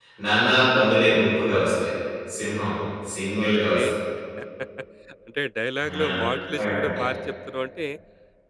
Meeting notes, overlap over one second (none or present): none